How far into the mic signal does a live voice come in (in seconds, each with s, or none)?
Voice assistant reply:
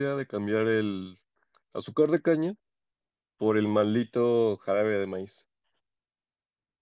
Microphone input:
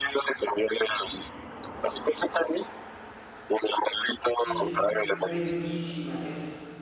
4.3 s